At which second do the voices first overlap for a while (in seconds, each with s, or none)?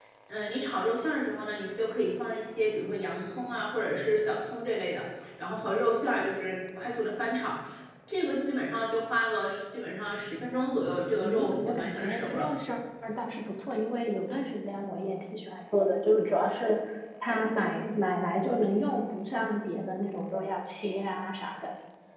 11.2 s